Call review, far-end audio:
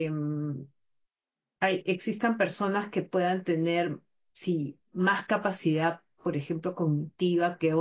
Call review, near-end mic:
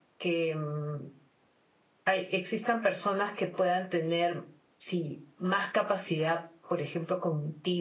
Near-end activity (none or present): none